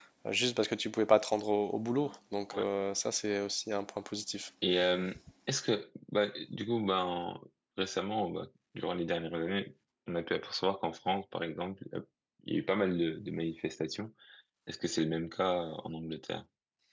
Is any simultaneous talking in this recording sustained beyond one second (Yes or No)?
No